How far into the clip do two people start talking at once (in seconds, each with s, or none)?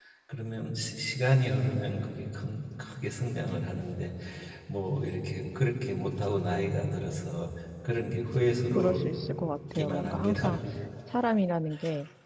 8.8 s